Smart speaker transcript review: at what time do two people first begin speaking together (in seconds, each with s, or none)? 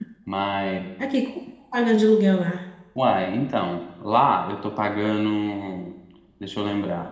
none